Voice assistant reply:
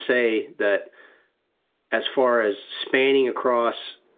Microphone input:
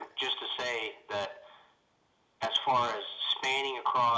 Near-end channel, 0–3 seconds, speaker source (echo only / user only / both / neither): echo only